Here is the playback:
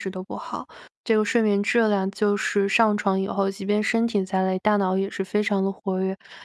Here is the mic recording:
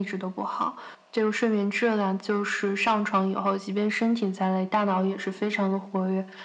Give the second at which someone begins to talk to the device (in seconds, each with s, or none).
none